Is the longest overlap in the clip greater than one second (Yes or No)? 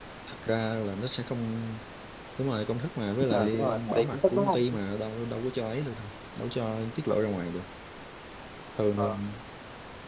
Yes